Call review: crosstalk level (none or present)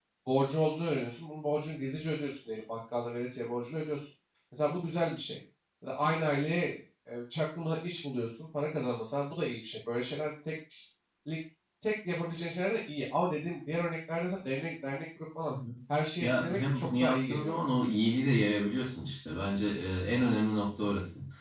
present